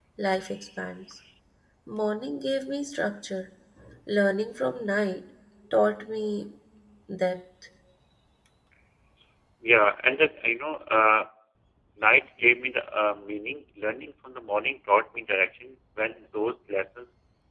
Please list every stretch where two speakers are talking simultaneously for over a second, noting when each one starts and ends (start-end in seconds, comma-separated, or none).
none